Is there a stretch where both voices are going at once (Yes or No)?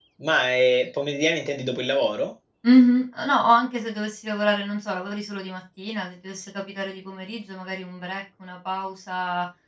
No